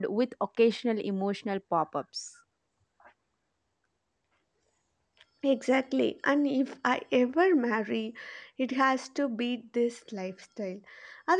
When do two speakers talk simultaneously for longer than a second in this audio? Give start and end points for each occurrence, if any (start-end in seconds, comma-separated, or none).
none